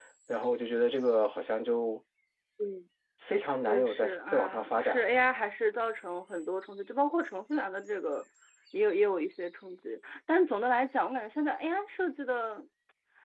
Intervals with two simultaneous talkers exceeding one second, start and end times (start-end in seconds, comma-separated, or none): 3.7-5.1